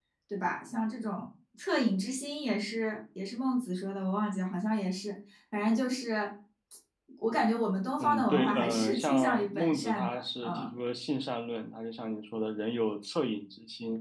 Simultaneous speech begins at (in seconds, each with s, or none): 8.0 s